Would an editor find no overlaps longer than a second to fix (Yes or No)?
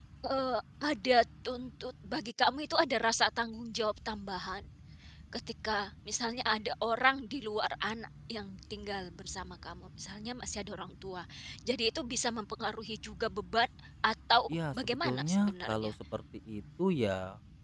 No